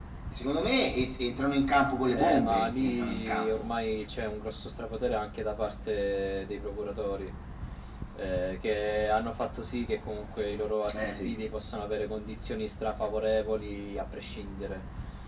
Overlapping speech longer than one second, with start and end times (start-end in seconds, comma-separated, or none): 2.1-3.7